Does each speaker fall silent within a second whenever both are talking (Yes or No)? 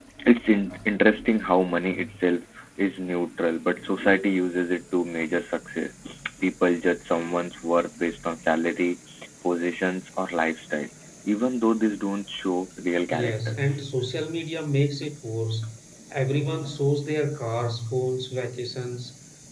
Yes